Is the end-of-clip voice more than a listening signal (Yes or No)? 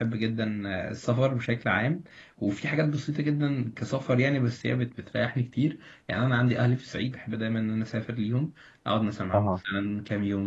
No